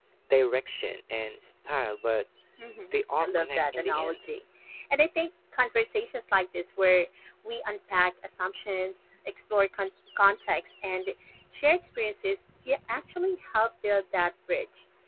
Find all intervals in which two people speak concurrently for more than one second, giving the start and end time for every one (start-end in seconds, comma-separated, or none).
2.9-4.3